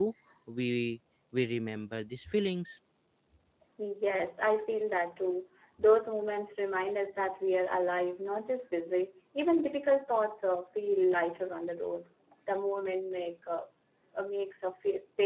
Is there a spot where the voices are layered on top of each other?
No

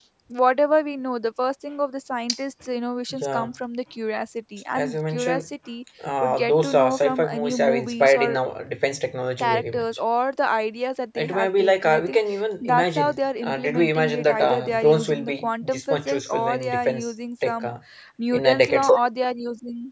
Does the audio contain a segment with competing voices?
Yes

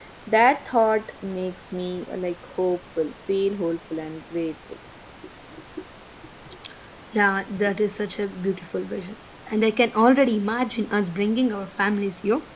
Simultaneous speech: No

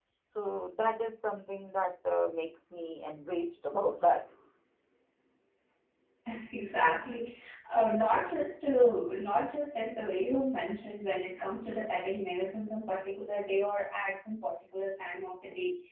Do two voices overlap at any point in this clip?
No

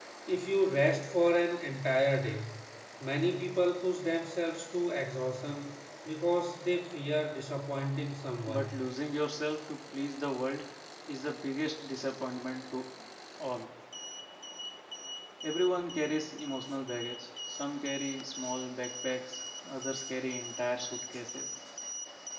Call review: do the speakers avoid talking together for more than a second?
Yes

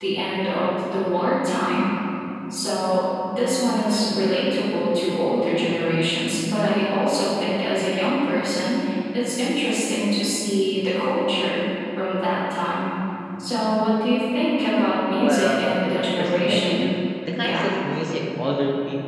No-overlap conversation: No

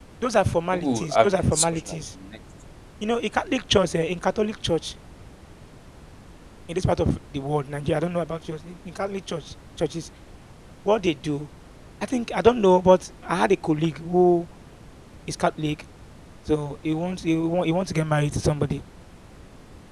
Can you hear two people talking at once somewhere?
Yes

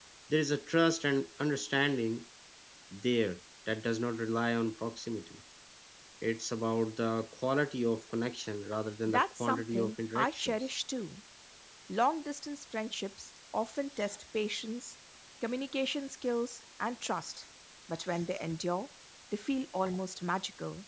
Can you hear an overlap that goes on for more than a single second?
Yes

